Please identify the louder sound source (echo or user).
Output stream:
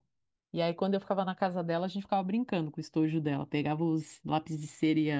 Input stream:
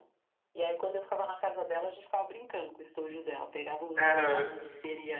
user